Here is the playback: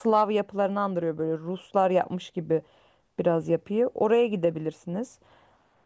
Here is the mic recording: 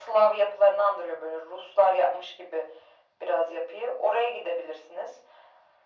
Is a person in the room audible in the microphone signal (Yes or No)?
No